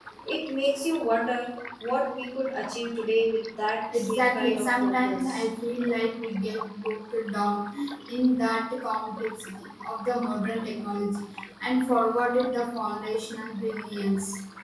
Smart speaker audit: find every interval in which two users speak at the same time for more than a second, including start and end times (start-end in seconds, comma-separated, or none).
3.9-5.4